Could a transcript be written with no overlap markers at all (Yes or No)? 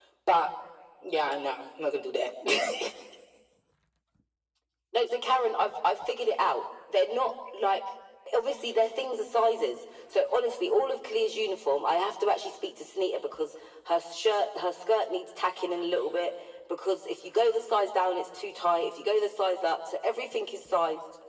Yes